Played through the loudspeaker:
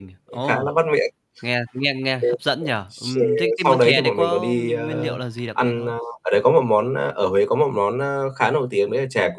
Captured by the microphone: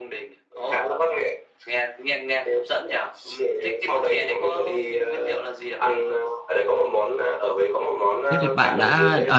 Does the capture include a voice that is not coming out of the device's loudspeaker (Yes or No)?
Yes